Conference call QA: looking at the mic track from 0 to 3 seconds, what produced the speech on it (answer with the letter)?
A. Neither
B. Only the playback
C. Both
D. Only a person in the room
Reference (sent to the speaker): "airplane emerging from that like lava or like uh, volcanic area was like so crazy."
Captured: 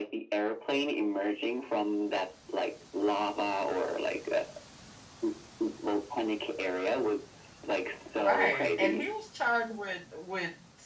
B